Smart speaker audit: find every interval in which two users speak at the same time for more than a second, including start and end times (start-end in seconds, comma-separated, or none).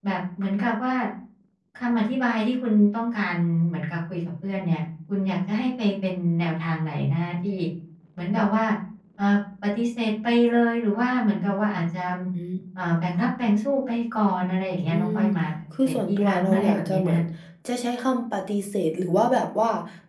15.8-17.2